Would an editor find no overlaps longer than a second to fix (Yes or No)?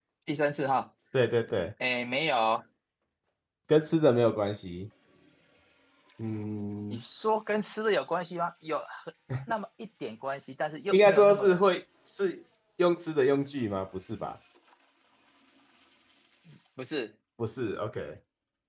Yes